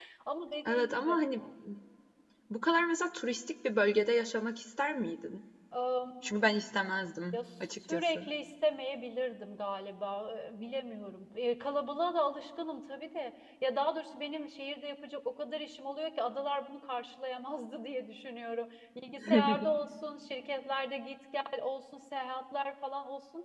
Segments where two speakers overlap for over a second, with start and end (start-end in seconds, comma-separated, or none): none